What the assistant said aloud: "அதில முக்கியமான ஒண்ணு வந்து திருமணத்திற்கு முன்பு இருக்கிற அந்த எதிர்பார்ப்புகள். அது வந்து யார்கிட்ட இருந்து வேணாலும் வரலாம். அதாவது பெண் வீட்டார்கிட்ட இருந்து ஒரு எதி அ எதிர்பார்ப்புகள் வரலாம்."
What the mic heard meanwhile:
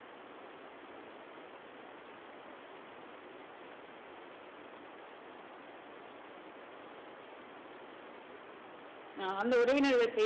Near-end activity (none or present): present